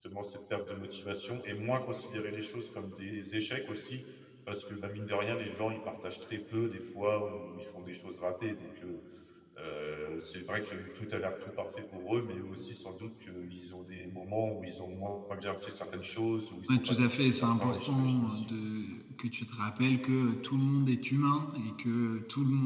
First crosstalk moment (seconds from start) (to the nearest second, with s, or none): 17 s